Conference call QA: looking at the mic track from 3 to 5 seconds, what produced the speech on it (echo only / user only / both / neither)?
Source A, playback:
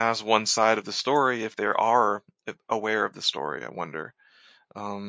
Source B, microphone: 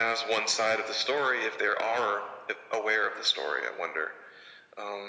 echo only